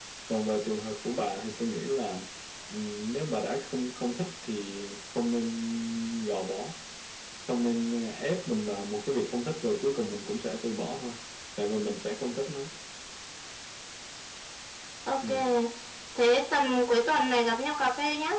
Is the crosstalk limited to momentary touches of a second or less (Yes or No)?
Yes